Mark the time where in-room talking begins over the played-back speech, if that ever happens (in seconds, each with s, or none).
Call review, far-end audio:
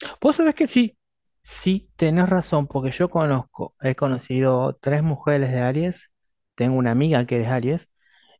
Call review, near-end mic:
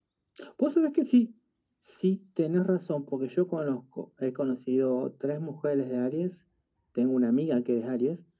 none